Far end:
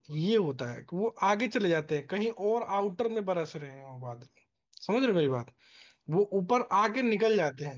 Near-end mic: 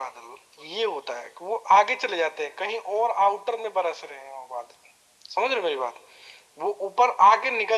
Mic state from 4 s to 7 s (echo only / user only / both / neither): echo only